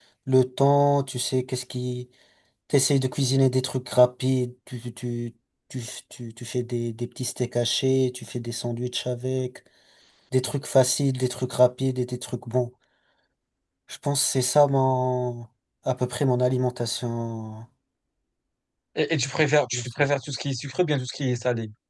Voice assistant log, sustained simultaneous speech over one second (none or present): none